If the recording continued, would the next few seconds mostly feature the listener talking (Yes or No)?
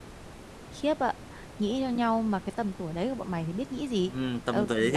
Yes